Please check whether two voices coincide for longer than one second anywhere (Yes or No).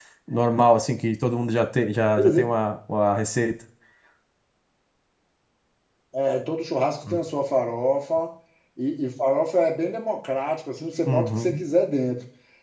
No